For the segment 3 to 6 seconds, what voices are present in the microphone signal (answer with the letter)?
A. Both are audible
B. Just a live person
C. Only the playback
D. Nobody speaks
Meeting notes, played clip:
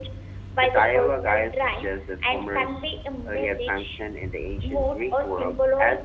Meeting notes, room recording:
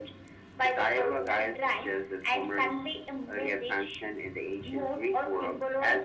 C